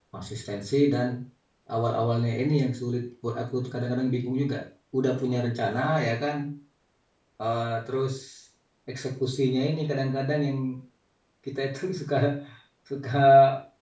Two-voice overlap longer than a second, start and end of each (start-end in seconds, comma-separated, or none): none